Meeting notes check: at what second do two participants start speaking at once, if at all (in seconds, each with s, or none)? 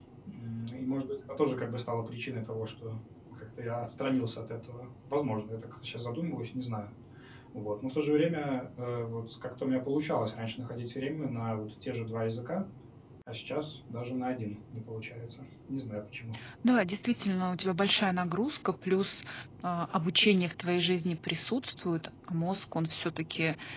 none